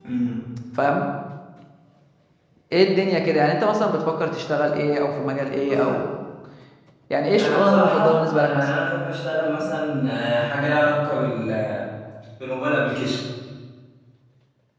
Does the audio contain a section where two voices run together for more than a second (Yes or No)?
Yes